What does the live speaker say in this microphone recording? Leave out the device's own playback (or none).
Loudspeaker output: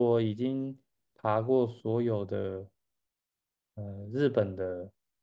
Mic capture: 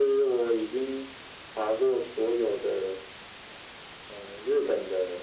none